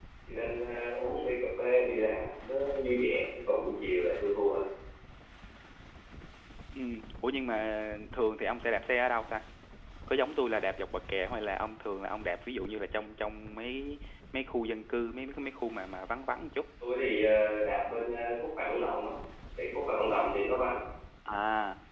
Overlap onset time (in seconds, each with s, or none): none